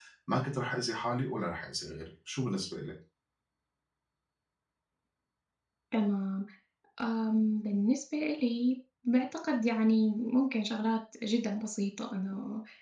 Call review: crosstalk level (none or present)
none